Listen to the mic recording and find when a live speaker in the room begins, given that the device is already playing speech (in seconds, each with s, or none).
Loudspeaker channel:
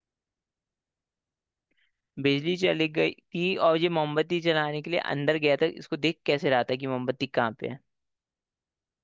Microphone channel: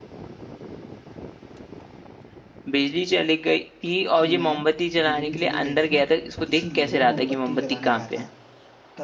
4.2 s